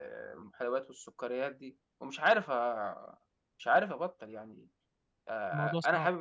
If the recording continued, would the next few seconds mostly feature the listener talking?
No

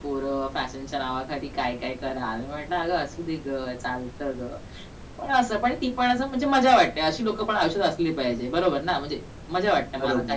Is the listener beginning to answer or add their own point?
Yes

